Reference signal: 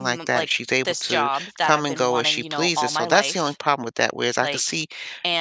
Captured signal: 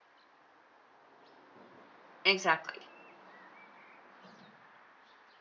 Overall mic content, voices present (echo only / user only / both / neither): user only